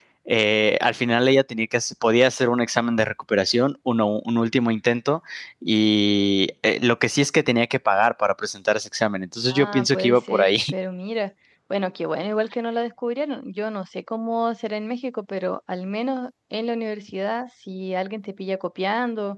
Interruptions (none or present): present